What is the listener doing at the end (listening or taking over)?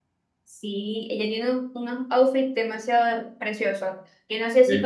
listening